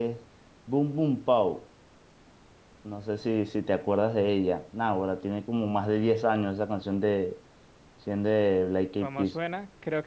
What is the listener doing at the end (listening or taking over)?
taking over